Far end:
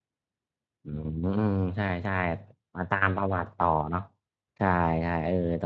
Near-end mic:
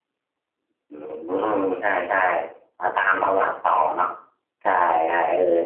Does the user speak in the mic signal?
No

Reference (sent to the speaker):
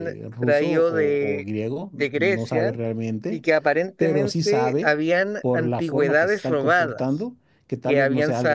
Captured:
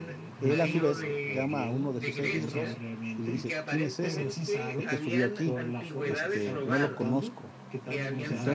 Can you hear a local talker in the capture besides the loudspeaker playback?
Yes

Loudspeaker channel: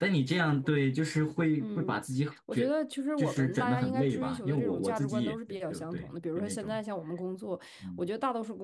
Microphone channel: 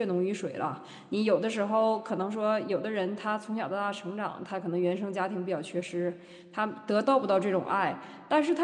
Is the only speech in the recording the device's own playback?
No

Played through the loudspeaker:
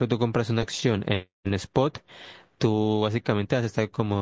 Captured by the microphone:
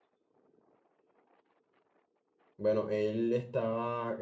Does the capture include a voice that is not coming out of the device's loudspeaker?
Yes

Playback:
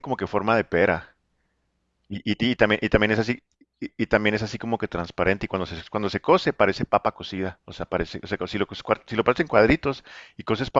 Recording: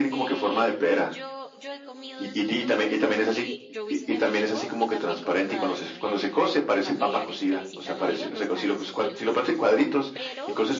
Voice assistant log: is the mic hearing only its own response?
No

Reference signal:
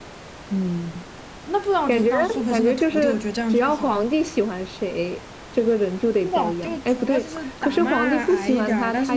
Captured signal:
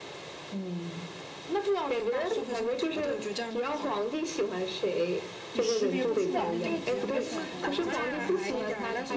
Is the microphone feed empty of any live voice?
No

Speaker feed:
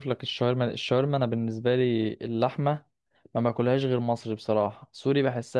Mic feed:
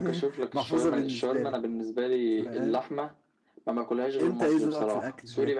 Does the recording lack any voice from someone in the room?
No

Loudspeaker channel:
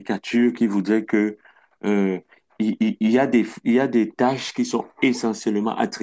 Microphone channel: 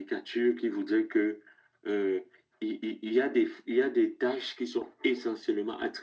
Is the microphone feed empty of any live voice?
Yes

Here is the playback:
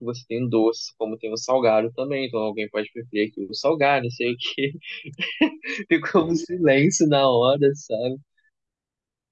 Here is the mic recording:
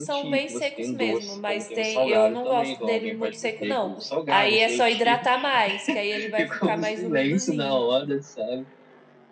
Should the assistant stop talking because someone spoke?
Yes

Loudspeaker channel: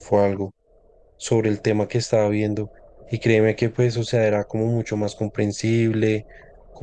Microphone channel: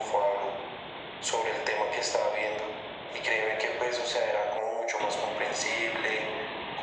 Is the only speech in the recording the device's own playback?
Yes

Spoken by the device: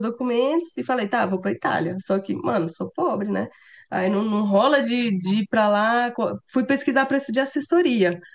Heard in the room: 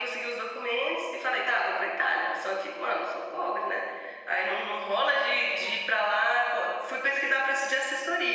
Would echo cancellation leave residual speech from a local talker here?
No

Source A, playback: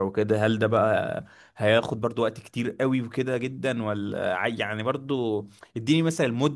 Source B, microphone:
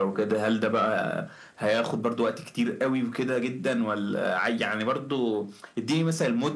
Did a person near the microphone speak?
No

